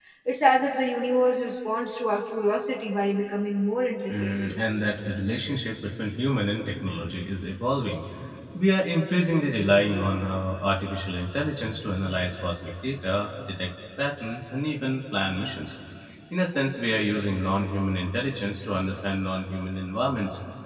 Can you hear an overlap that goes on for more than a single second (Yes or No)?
No